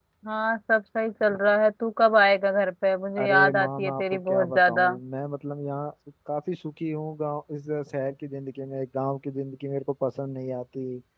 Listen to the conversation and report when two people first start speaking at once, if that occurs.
3.2 s

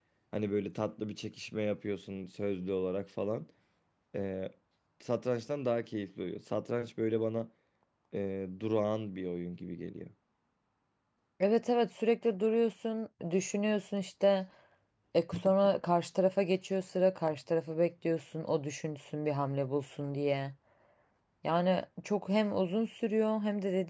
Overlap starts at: none

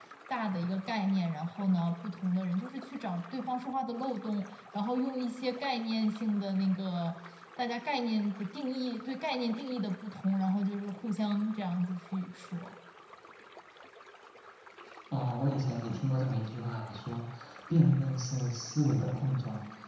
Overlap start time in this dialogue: none

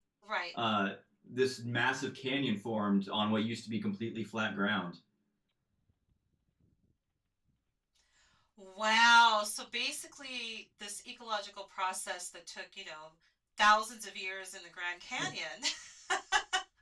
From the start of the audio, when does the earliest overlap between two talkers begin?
none

